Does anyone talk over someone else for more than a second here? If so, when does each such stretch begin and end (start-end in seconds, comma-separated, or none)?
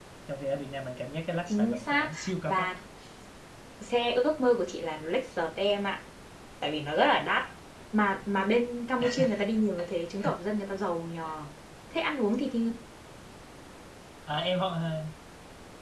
1.5-2.7